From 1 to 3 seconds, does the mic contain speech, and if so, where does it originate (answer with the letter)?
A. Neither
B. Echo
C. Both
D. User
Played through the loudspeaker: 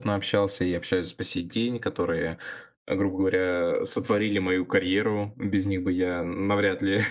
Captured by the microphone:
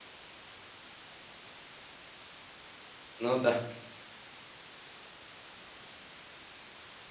A